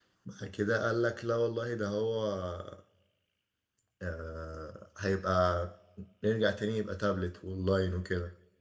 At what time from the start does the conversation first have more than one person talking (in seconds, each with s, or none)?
none